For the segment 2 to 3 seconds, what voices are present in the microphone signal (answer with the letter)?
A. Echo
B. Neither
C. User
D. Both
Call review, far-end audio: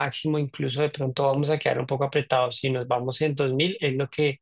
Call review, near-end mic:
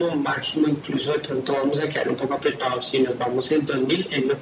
A